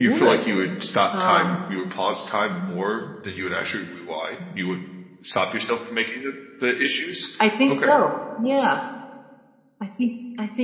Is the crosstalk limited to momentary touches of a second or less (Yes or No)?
Yes